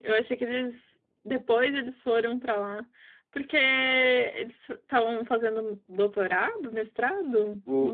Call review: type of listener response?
taking over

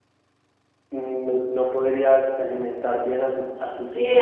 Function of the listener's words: taking over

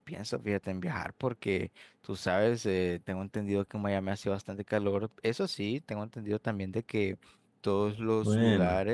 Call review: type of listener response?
listening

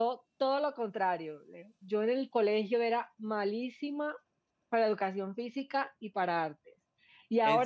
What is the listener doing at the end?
listening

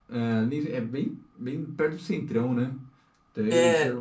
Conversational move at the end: listening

